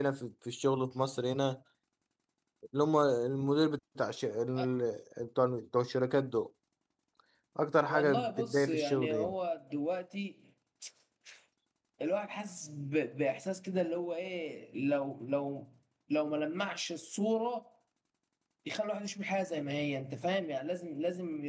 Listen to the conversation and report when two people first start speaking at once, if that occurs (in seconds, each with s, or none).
7.9 s